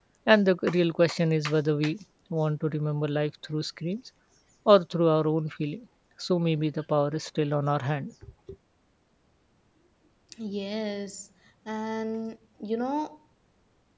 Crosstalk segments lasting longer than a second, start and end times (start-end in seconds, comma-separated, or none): none